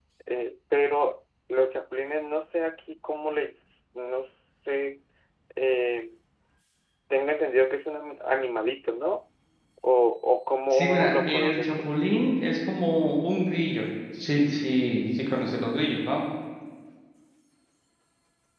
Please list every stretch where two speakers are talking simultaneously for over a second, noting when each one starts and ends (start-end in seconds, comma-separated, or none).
10.7-11.9